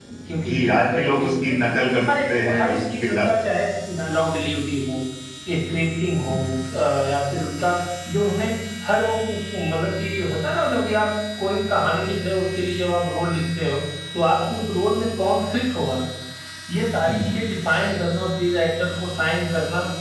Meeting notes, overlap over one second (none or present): present